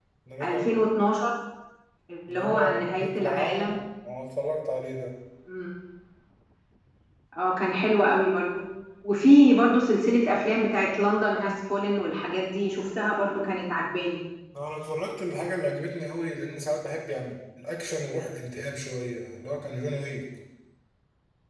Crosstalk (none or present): present